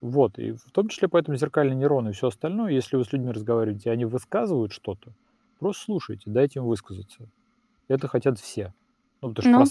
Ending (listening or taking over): taking over